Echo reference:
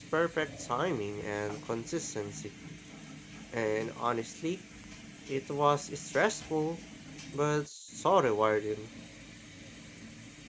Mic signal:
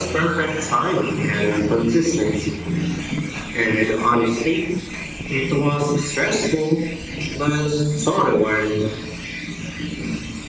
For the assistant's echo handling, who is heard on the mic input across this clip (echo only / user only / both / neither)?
echo only